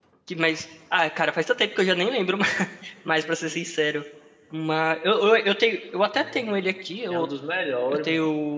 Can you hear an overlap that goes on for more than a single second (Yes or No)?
No